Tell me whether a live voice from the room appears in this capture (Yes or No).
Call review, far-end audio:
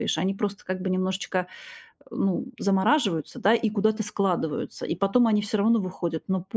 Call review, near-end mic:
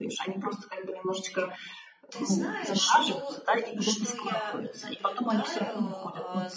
Yes